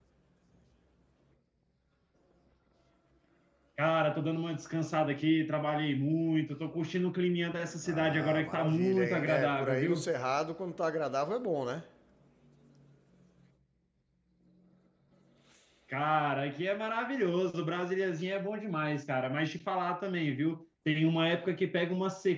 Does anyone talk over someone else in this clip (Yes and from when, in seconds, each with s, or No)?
Yes, from 7.6 s